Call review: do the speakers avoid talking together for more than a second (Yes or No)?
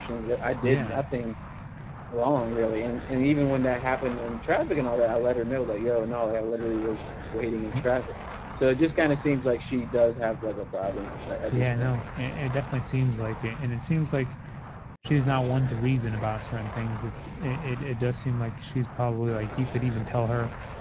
Yes